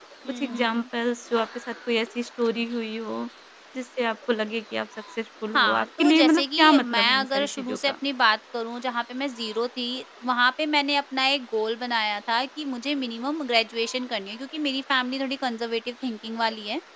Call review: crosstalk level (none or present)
present